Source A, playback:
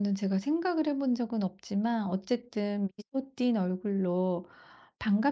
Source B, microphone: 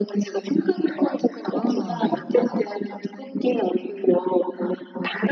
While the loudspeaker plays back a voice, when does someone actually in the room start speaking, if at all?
2 s

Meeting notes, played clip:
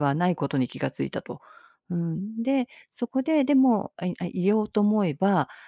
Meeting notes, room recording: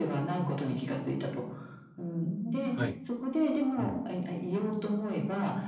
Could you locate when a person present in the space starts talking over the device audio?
3 s

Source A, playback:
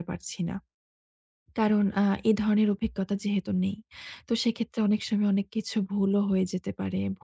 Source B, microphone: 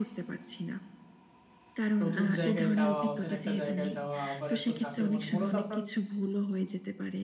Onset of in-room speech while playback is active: 2 s

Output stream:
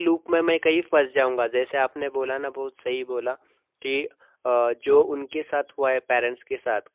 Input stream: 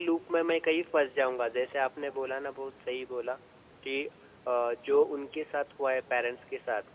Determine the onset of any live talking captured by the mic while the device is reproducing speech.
none

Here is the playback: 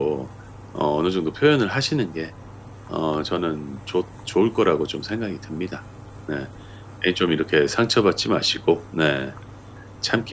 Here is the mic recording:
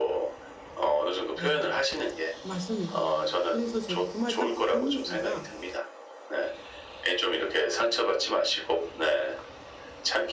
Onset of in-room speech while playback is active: 1 s

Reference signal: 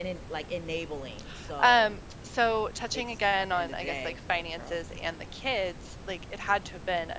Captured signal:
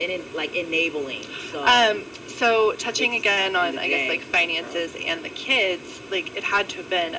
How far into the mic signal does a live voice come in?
none

